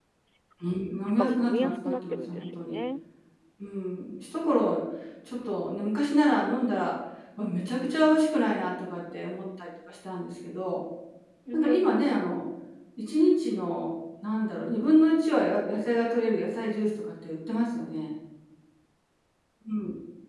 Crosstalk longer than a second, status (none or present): present